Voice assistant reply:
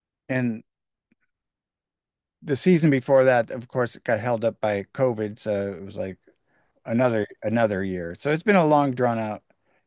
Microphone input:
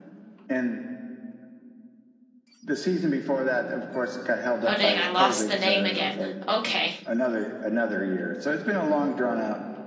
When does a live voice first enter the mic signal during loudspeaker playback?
5 s

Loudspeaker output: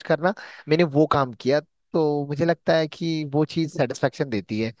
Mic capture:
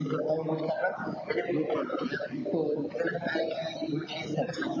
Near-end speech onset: none

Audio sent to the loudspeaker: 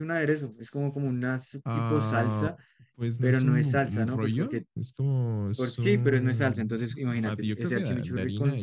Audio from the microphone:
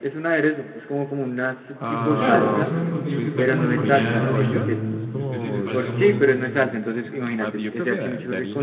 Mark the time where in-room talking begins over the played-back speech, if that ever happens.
2 s

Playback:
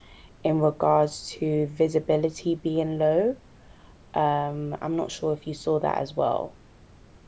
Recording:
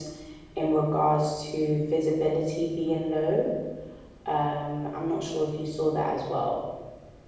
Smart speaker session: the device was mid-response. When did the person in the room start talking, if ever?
none

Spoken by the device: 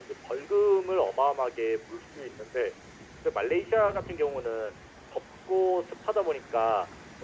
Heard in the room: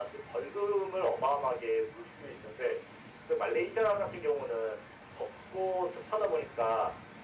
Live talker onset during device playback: none

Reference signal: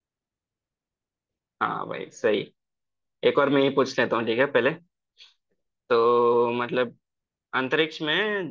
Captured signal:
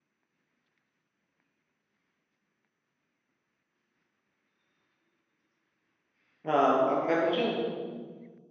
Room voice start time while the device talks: 6 s

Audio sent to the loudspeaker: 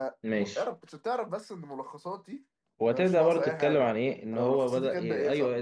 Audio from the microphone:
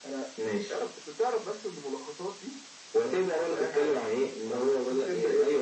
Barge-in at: none

